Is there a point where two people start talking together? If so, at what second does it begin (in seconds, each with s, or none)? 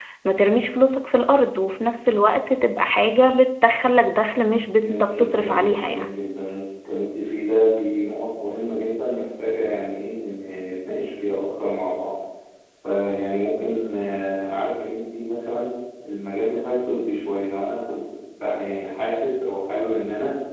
4.8 s